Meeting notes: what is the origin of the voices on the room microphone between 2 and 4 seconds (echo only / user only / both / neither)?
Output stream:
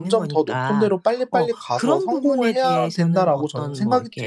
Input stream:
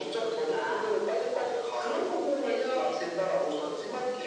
echo only